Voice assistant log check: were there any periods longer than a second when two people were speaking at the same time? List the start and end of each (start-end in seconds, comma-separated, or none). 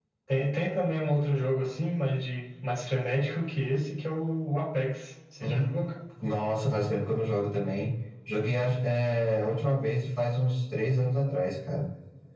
none